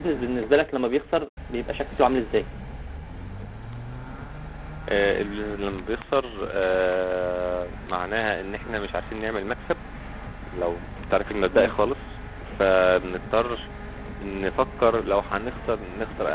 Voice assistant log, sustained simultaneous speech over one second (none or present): none